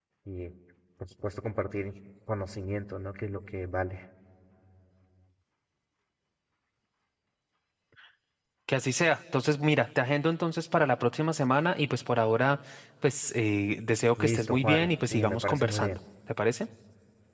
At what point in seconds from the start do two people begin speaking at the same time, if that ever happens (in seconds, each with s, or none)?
14.2 s